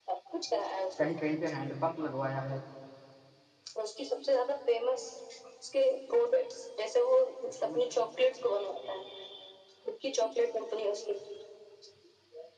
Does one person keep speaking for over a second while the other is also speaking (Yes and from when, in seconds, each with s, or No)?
No